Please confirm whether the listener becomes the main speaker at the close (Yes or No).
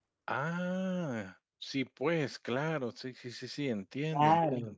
Yes